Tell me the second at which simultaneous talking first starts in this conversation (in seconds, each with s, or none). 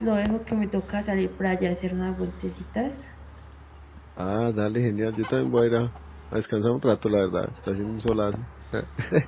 none